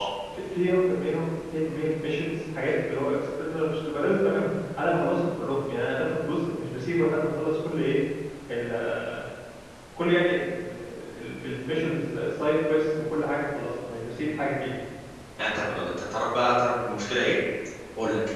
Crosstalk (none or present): none